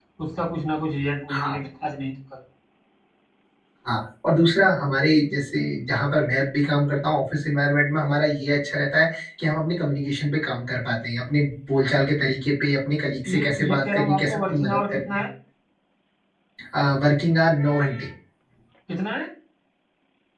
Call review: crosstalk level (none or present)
present